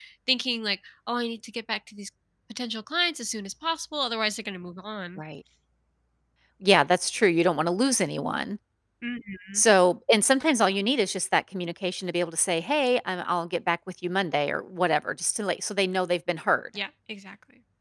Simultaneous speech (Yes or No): No